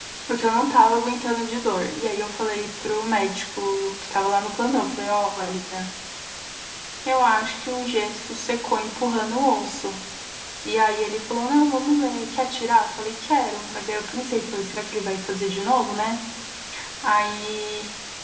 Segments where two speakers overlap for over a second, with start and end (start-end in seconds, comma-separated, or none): none